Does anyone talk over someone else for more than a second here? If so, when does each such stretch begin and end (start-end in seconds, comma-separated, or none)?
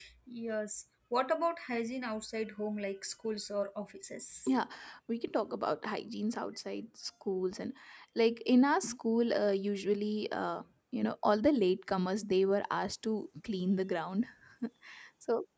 none